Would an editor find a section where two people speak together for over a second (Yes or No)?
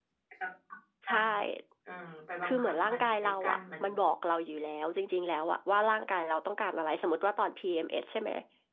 Yes